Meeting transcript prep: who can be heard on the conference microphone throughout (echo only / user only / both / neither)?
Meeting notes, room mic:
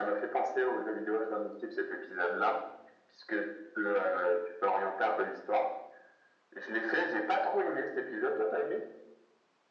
echo only